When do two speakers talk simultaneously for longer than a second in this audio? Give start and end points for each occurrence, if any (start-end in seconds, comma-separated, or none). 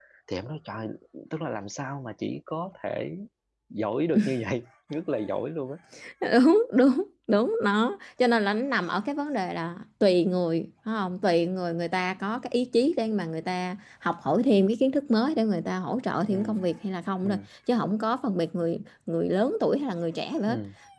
none